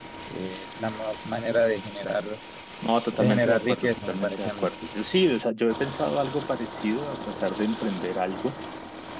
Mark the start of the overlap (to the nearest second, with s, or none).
3 s